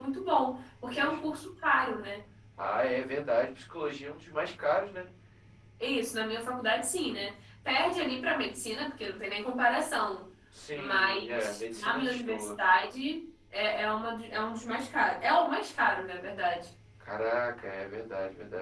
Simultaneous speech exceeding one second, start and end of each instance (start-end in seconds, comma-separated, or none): 10.7-12.6